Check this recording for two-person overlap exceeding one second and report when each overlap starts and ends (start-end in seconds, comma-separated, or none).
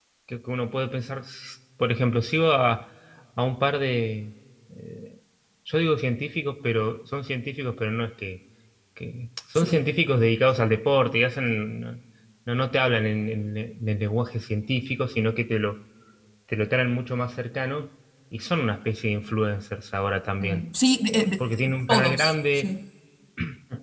21.1-22.7